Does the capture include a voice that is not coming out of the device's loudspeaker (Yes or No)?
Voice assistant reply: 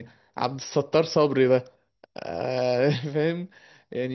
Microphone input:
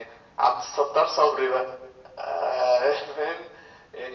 No